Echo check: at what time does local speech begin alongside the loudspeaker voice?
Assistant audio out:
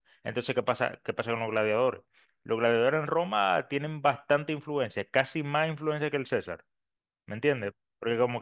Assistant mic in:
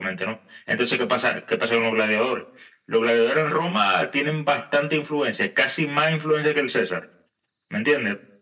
none

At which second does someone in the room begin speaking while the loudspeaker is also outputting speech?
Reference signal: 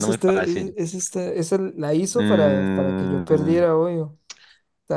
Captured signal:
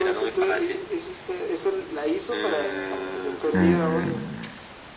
3.5 s

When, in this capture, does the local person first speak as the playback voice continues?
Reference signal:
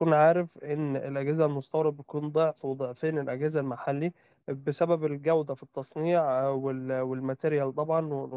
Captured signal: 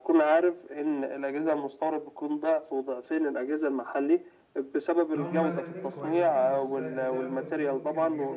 5.1 s

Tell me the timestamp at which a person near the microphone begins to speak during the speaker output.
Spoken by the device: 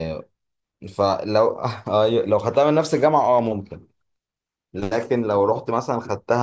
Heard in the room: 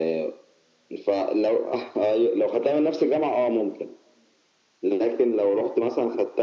none

